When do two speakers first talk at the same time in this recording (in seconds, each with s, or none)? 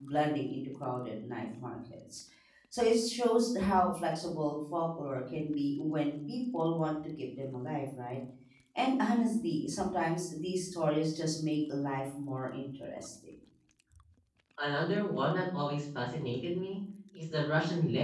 none